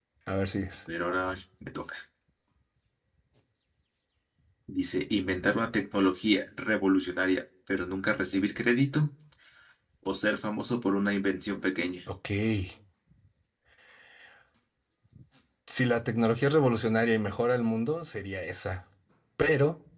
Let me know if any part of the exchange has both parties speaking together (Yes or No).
No